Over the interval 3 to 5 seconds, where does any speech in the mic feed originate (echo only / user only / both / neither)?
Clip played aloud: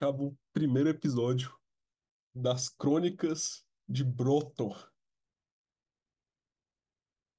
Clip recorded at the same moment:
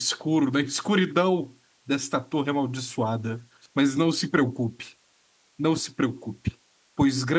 user only